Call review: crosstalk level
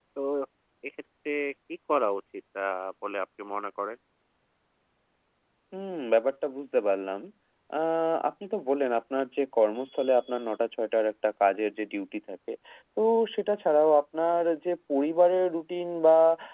none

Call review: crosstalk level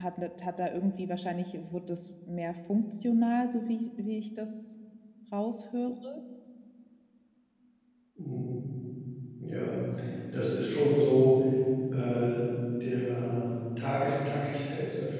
none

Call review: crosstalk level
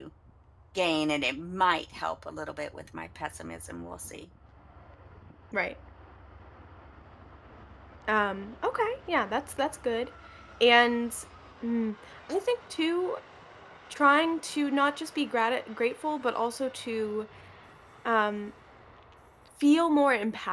none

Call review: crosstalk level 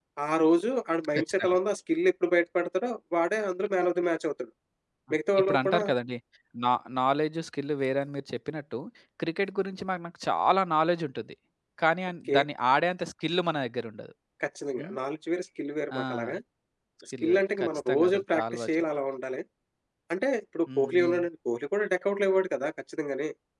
present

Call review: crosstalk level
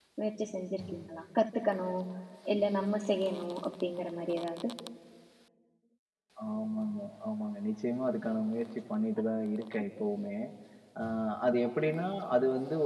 none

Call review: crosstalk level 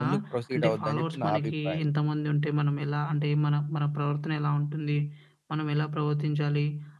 present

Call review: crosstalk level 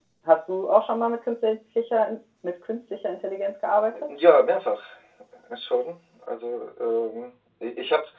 none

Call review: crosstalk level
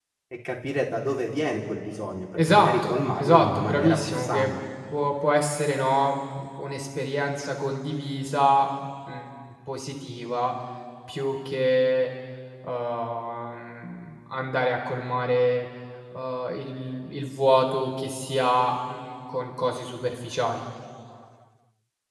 present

